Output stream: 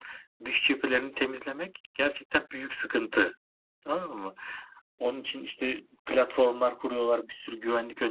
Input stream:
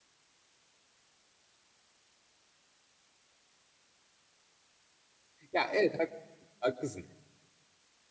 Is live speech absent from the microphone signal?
No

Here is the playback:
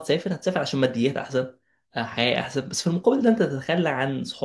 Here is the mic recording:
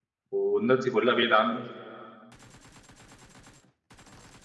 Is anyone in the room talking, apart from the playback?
Yes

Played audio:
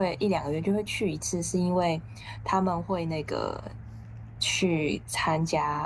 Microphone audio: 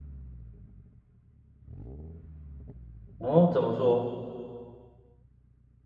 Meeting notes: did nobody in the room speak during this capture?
No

